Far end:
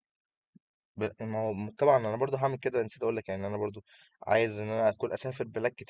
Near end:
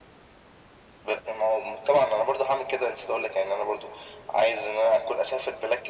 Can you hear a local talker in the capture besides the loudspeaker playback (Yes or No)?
No